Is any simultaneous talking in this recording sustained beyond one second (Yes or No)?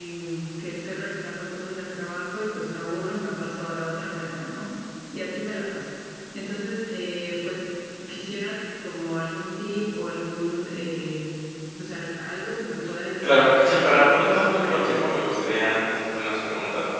Yes